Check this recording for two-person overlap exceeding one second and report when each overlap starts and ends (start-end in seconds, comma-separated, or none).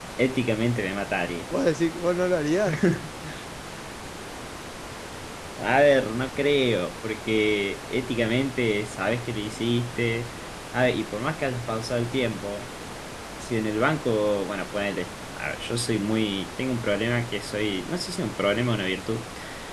none